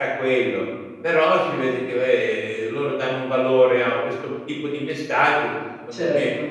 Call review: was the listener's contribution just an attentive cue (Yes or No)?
Yes